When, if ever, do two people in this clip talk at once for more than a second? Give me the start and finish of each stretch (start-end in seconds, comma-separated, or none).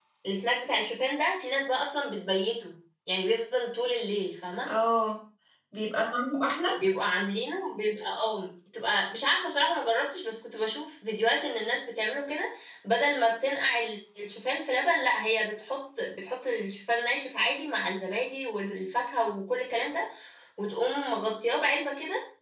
none